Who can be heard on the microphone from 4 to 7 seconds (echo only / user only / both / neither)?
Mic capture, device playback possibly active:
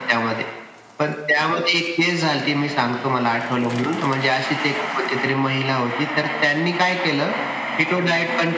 echo only